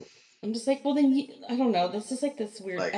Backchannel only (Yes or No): Yes